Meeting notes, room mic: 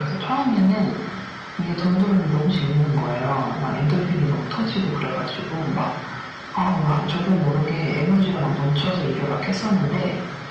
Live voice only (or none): none